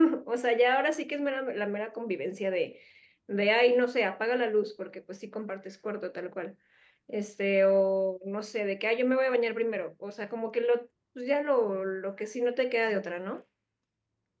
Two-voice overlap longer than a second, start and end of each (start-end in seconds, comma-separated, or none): none